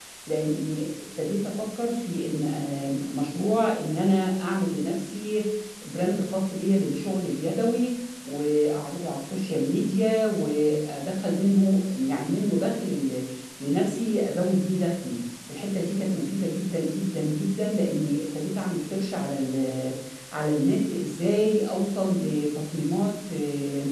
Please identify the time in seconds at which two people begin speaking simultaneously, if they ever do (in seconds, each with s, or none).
none